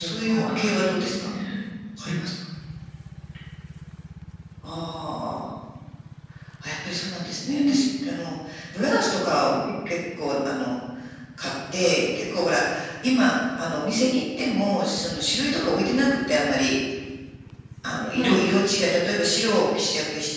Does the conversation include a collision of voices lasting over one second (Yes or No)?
Yes